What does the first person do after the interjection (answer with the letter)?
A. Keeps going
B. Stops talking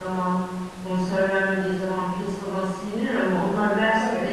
A